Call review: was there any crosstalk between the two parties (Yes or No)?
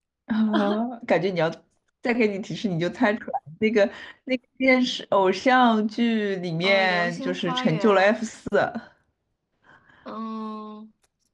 Yes